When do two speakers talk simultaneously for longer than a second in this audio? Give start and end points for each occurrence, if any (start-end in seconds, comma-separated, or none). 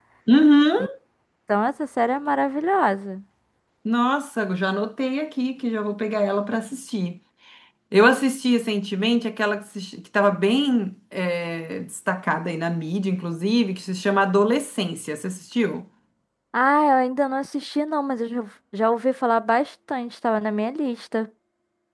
none